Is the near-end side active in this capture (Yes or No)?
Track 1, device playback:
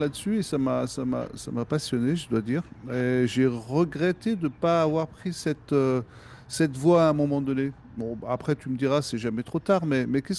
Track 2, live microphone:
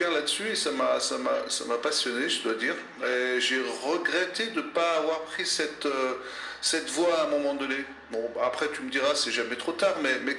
No